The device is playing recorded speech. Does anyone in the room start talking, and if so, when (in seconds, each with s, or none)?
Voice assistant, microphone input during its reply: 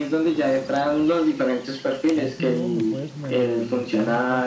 2.1 s